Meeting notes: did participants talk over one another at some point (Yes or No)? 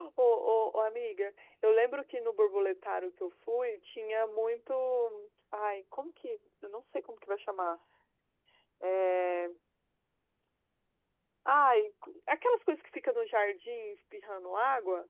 No